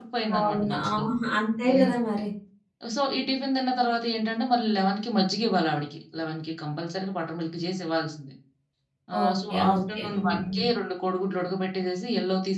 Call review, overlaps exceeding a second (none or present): present